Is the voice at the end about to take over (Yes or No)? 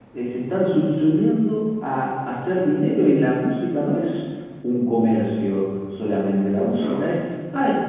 No